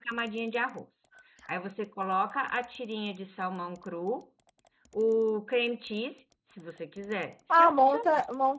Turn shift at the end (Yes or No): Yes